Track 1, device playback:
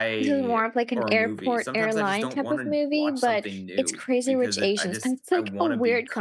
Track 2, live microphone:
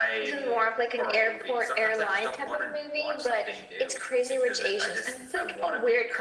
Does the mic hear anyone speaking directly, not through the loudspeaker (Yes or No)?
No